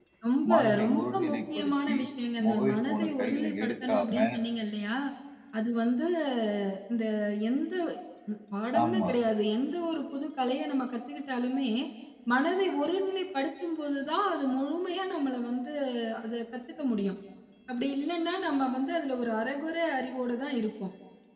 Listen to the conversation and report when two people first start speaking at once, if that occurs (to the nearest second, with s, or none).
1 s